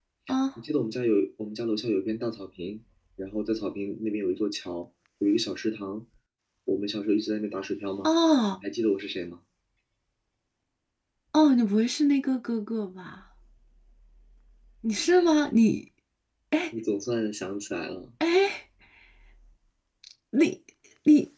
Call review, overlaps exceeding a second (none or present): none